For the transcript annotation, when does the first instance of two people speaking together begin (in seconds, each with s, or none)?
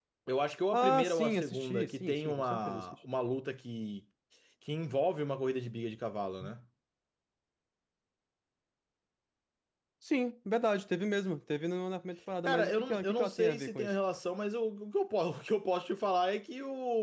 0.7 s